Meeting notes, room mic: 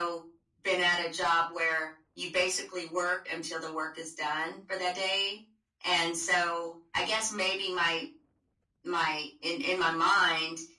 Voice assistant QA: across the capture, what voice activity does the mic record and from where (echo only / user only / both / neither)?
echo only